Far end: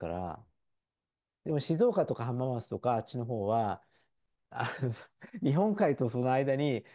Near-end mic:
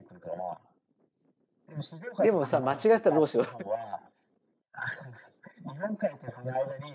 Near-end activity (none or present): present